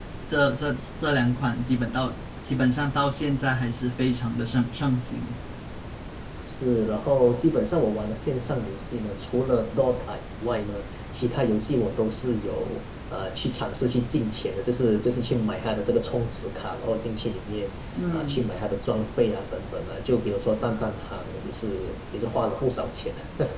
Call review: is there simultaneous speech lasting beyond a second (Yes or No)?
No